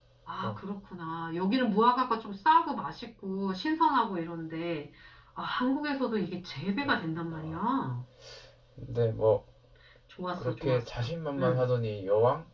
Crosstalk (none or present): present